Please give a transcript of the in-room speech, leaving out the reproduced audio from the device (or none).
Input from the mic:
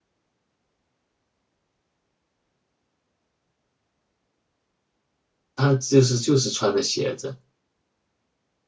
他就是就是穿的鞋子。